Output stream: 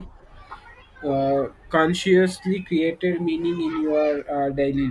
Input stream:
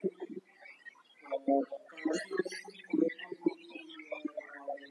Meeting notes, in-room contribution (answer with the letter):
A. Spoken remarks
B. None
B